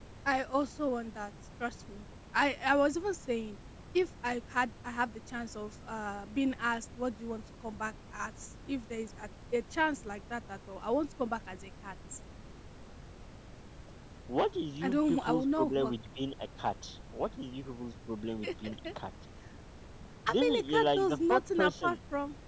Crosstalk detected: Yes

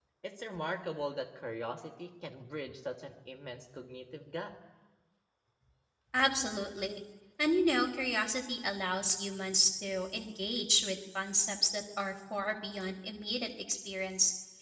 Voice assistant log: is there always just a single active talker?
Yes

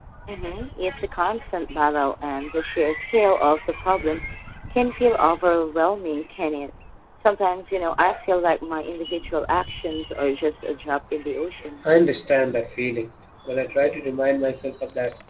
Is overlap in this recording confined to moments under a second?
Yes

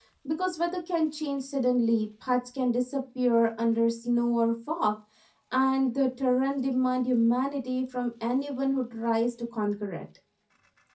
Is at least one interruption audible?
No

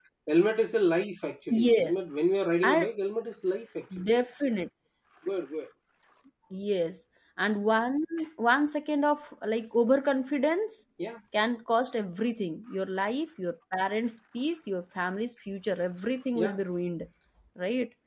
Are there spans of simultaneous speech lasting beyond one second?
No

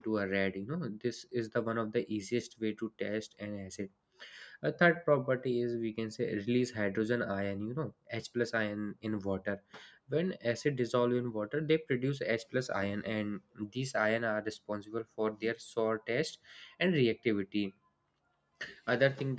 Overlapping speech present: No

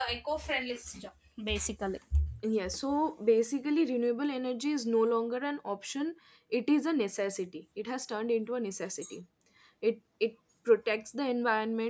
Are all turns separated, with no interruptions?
Yes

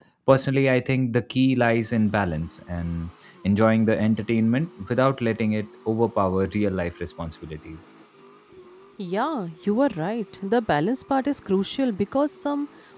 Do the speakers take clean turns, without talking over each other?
Yes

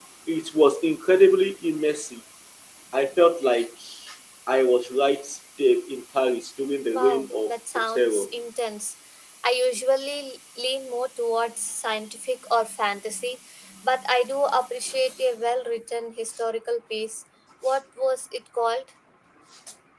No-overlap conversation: No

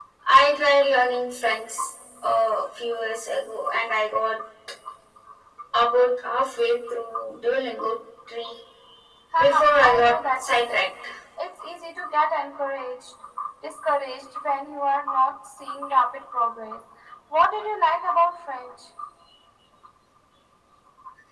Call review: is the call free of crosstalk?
No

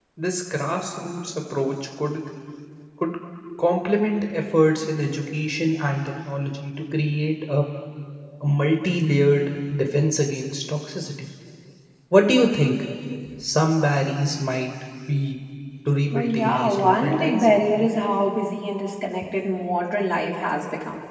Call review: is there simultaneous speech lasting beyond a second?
Yes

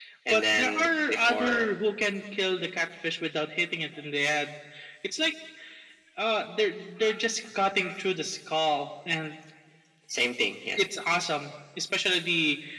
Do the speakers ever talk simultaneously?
Yes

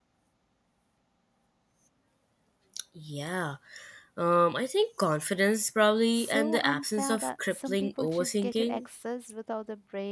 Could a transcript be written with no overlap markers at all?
No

